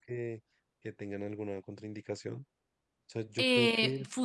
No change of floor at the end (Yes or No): No